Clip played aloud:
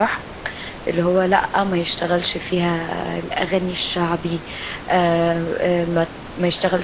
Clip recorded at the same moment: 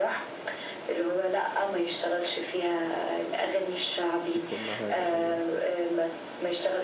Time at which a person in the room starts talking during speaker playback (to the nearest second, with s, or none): 4 s